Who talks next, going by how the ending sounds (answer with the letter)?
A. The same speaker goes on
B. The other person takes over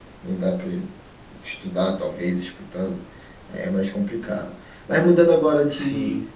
A